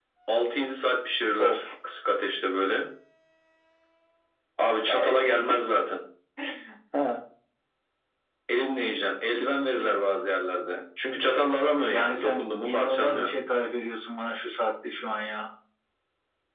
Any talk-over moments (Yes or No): Yes